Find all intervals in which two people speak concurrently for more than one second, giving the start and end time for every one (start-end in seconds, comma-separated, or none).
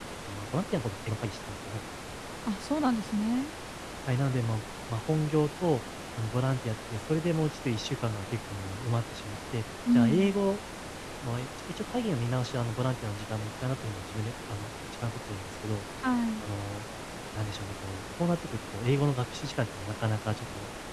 none